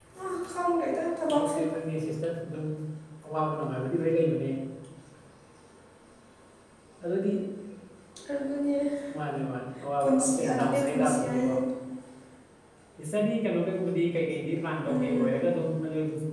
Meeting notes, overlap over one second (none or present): present